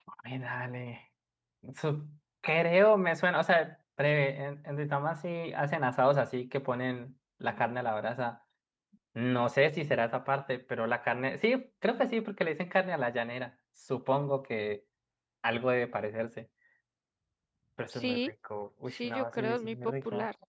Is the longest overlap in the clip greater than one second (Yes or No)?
Yes